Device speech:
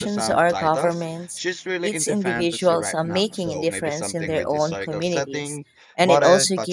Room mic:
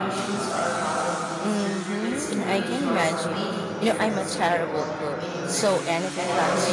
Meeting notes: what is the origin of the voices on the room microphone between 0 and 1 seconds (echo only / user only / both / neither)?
echo only